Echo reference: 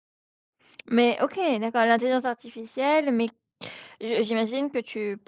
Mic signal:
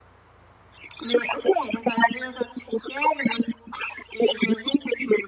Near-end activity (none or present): none